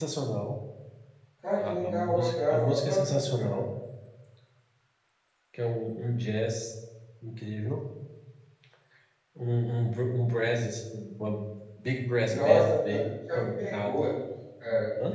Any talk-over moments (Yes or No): Yes